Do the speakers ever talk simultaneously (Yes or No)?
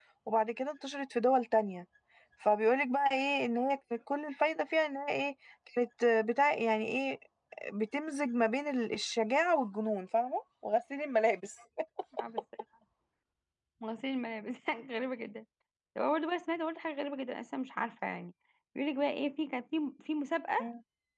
No